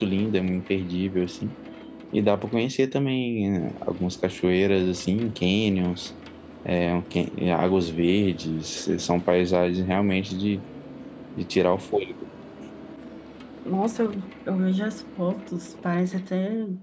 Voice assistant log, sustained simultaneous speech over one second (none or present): none